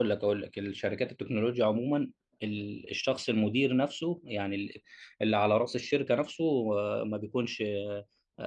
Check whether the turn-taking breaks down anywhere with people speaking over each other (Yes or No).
No